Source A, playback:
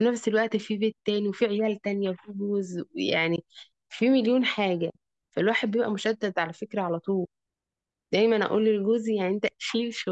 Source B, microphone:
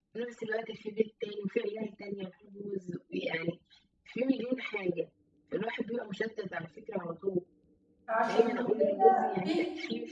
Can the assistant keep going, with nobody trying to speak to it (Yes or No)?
No